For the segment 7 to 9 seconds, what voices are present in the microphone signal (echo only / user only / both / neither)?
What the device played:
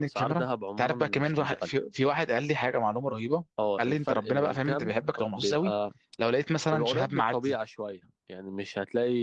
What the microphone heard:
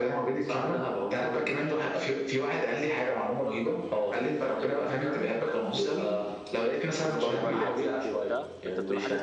both